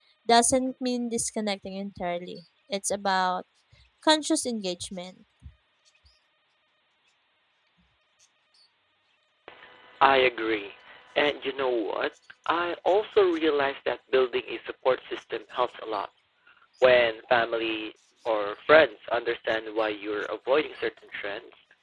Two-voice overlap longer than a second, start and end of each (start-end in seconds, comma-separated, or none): none